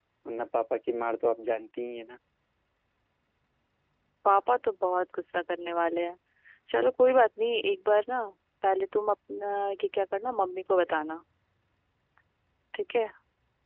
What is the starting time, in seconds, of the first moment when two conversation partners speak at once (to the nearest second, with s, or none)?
none